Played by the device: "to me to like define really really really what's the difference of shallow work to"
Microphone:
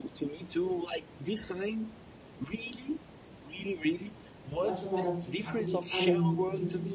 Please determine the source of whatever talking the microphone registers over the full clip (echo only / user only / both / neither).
both